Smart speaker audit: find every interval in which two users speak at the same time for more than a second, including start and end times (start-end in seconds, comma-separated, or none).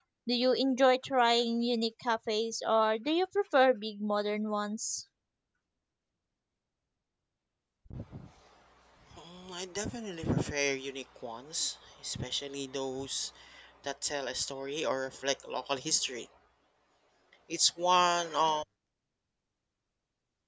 none